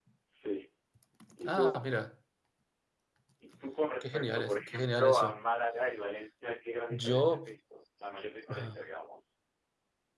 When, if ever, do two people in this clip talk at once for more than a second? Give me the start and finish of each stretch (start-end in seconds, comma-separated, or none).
4.0-5.4